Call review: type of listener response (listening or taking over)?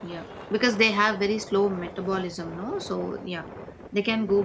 taking over